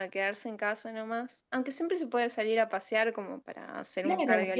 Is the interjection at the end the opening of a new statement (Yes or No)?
Yes